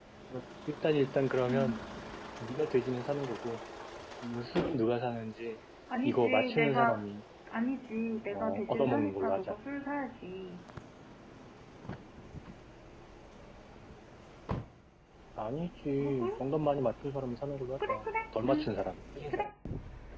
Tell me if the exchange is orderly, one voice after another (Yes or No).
No